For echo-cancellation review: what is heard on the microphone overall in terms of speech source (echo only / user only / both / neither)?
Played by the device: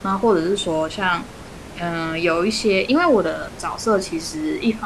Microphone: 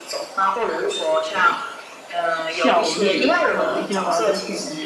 both